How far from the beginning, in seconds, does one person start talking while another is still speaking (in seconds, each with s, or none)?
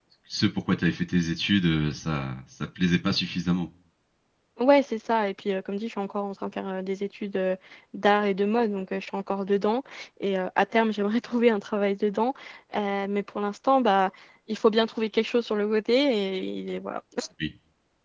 none